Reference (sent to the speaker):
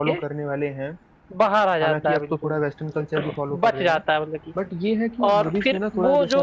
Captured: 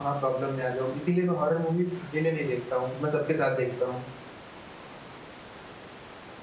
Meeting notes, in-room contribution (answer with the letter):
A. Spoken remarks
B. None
A